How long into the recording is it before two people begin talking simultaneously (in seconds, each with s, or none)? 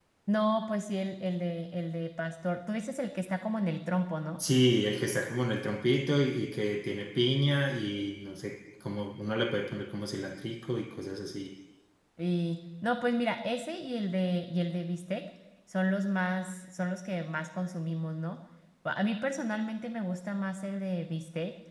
none